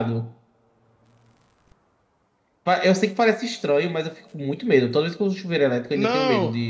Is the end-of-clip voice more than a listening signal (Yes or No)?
Yes